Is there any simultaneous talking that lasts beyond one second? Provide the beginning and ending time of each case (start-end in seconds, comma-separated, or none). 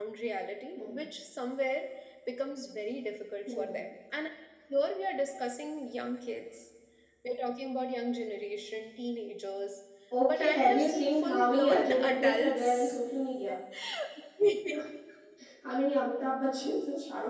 10.3-13.0